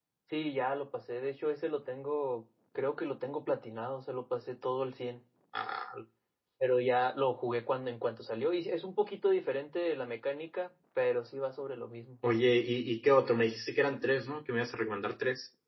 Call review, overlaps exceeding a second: none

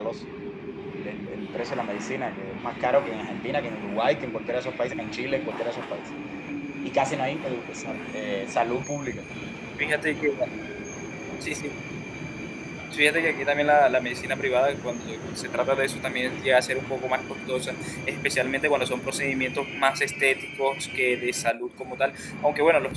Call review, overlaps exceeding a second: none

